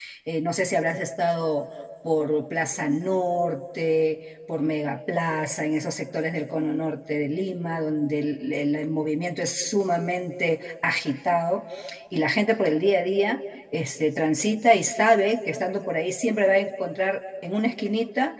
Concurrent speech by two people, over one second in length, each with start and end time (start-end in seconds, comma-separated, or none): none